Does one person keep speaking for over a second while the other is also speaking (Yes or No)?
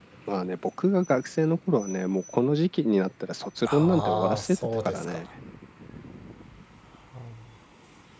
Yes